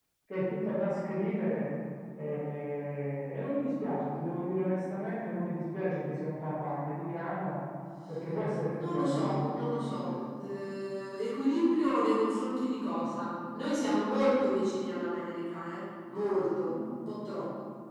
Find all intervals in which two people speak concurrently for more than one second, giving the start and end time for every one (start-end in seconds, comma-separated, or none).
8.8-10.1